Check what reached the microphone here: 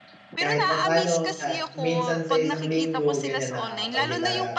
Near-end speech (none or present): present